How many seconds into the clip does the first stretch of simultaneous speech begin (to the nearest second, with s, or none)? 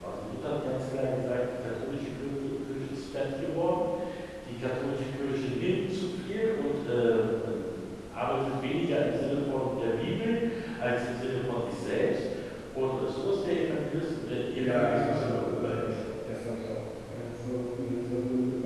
15 s